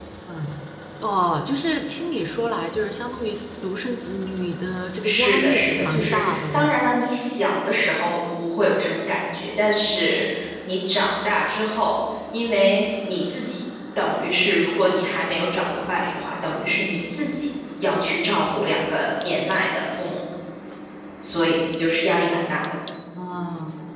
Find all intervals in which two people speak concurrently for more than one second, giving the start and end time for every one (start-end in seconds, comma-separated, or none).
5.0-6.8